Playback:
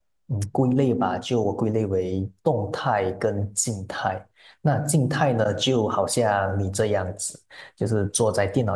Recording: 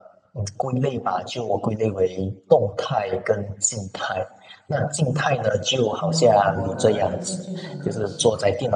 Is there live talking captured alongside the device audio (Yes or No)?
Yes